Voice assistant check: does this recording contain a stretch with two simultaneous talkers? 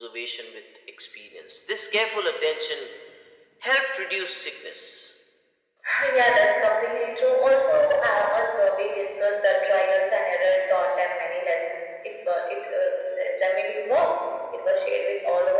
No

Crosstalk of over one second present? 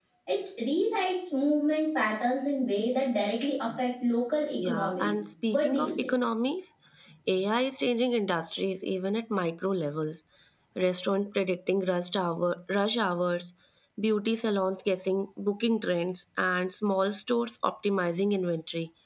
Yes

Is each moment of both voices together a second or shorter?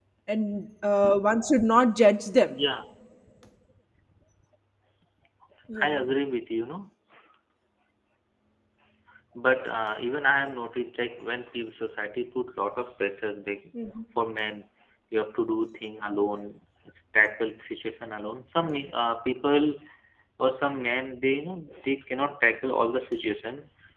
Yes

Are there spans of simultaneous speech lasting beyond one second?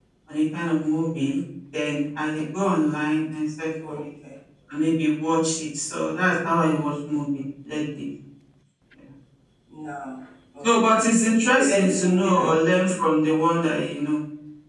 Yes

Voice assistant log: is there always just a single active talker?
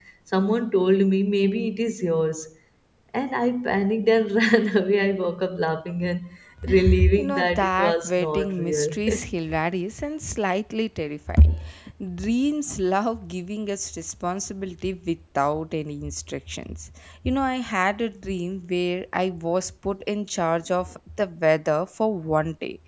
No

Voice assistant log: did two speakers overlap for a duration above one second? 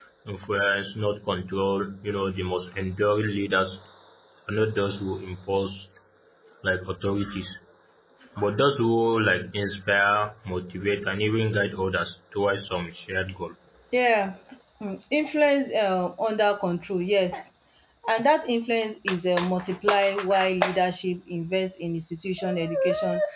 No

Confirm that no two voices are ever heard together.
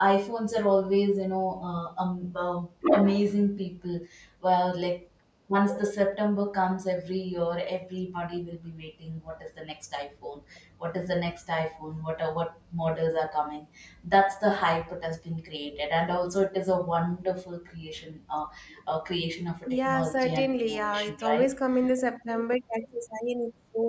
No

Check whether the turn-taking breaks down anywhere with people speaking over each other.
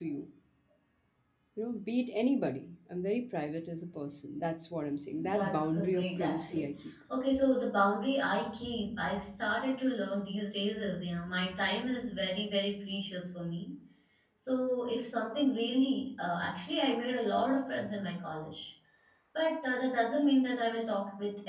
Yes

